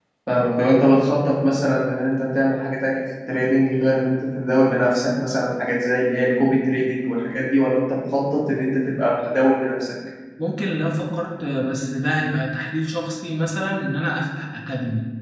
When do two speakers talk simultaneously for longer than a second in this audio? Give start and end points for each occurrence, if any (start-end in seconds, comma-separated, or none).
none